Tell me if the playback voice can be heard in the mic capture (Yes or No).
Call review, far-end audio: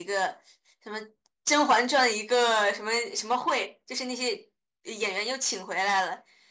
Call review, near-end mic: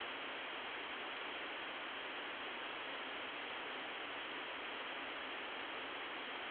No